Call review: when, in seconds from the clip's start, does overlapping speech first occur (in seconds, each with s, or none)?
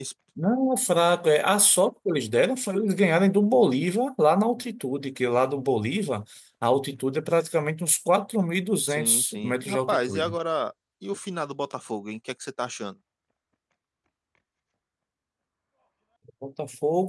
8.9 s